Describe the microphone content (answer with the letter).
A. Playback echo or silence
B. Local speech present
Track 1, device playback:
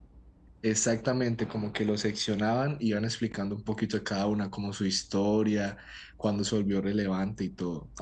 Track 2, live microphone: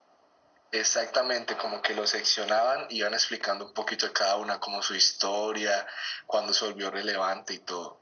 A